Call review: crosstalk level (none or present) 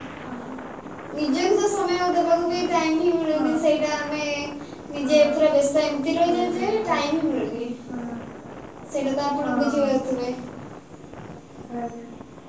present